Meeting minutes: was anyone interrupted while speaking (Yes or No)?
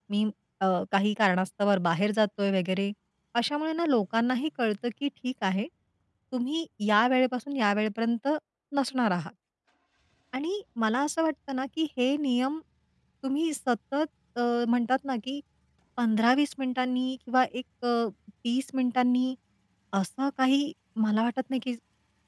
No